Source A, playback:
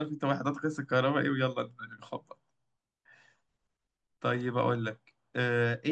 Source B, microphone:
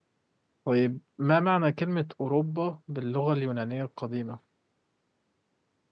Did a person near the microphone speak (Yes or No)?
Yes